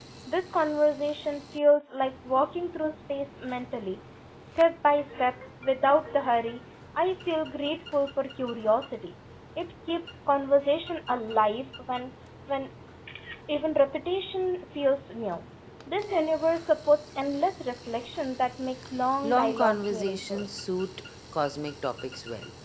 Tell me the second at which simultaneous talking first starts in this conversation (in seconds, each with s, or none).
19.2 s